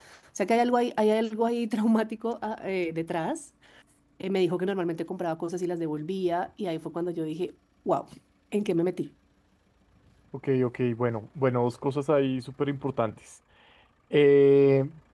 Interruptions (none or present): none